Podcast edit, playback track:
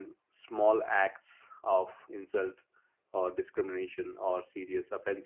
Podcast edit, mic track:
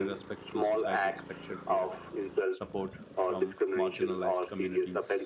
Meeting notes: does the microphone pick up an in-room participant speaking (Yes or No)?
Yes